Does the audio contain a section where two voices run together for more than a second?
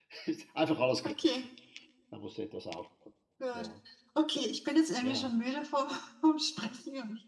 No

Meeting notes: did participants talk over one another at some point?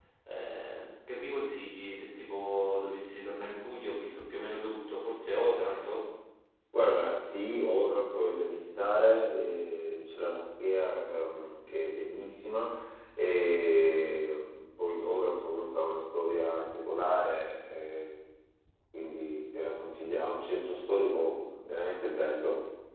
No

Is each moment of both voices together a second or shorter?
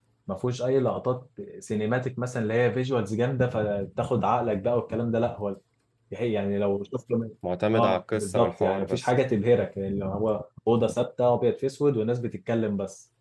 No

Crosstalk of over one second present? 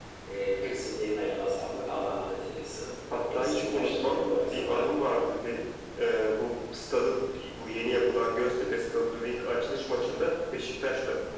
Yes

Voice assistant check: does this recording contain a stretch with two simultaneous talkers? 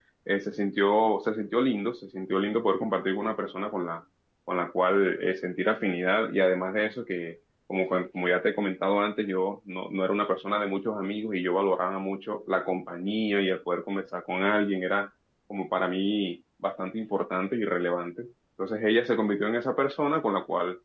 No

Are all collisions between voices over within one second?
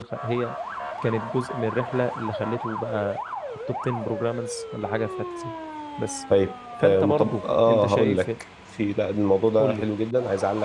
No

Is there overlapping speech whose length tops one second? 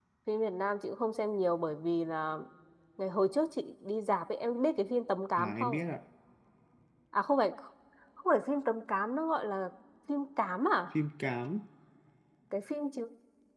No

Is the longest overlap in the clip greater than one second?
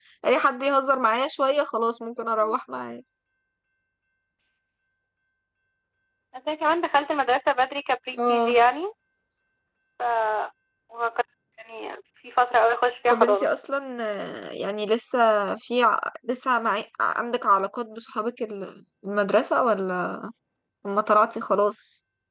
No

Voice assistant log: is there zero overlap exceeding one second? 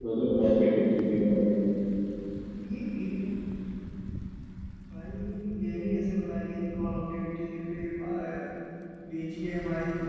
Yes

